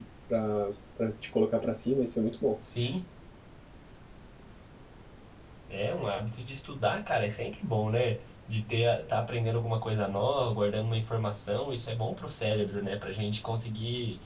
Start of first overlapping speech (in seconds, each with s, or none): none